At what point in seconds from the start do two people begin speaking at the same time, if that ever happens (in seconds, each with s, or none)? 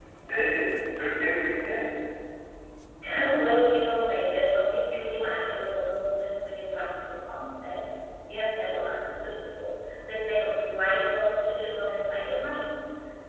none